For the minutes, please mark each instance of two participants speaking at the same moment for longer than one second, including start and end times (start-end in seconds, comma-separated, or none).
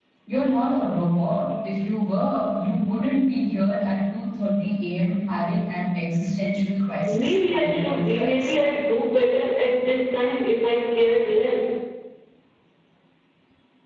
7.2-8.5